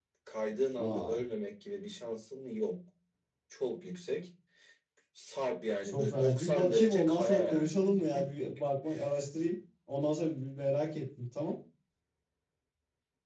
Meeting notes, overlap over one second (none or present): present